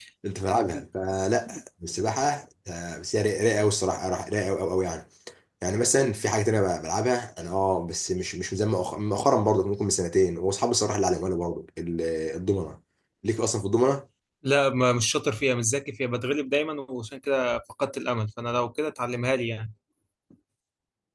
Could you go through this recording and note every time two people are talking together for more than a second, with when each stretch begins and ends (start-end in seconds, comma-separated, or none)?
none